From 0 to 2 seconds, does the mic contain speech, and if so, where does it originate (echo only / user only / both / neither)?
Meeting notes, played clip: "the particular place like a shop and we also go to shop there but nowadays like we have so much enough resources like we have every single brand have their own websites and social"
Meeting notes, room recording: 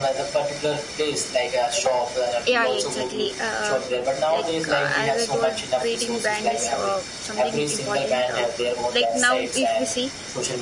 echo only